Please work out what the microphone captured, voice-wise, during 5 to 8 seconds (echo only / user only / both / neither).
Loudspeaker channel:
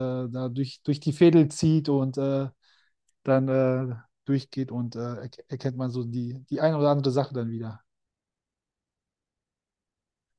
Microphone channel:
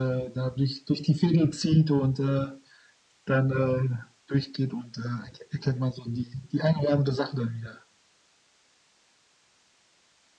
echo only